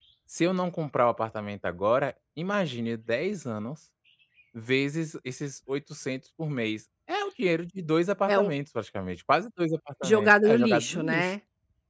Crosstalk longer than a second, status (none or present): present